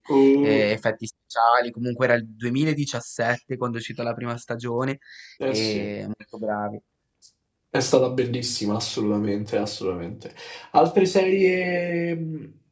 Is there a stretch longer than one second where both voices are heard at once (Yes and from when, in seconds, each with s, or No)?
No